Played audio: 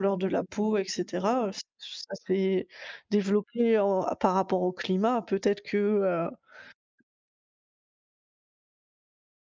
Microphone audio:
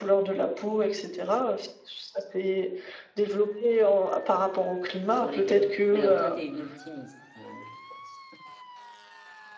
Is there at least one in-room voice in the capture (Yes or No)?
Yes